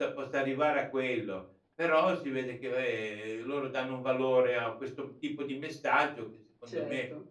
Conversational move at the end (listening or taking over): listening